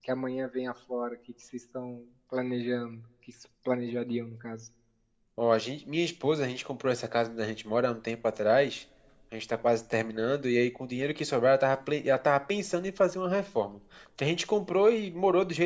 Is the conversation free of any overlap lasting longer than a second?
Yes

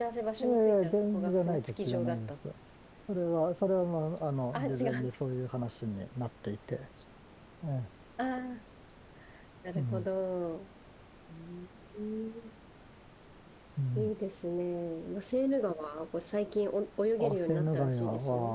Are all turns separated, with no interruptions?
No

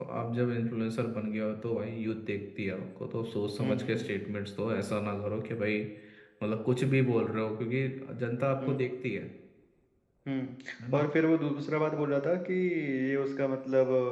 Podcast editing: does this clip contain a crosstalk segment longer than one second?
No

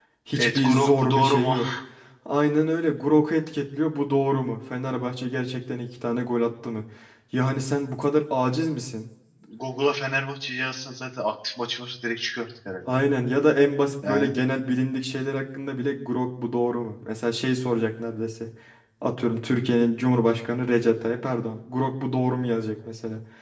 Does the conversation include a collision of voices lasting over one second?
Yes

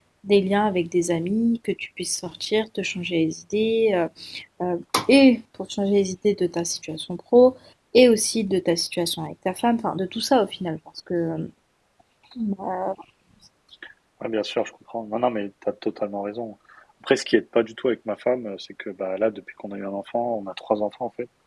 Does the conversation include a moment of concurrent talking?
No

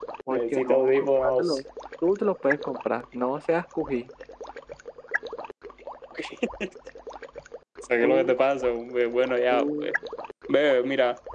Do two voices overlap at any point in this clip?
Yes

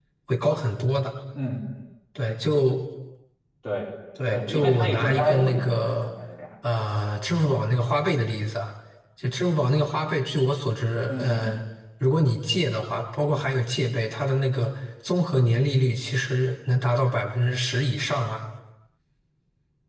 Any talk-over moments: Yes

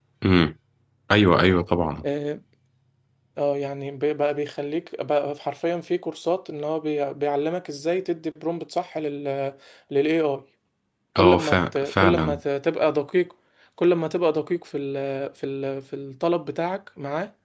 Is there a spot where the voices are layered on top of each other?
Yes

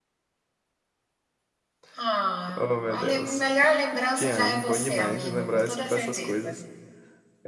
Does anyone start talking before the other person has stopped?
Yes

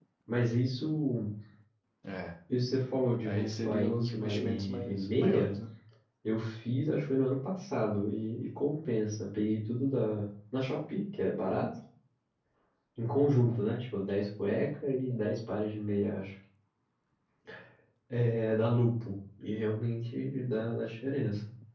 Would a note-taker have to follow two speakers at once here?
Yes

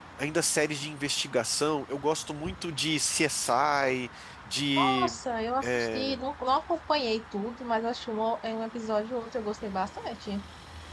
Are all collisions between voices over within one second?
Yes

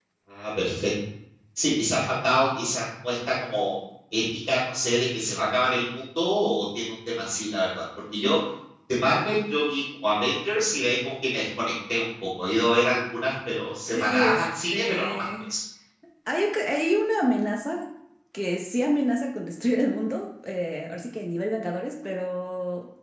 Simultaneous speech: Yes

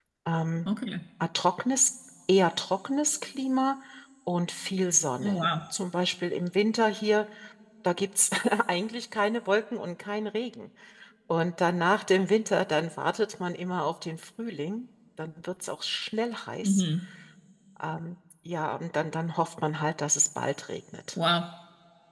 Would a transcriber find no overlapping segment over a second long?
Yes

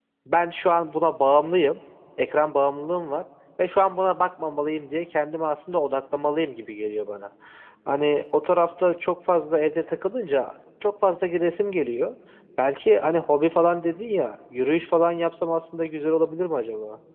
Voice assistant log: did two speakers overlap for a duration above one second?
No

